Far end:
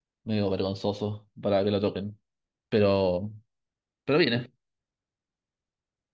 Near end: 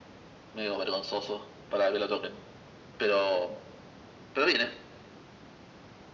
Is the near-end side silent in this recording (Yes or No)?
Yes